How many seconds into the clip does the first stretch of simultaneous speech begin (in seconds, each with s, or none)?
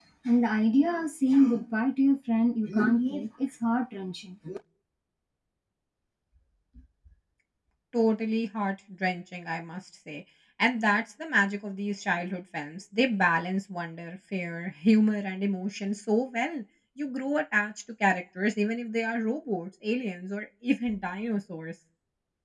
none